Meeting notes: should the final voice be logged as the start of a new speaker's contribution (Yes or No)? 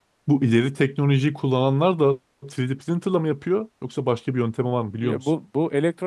Yes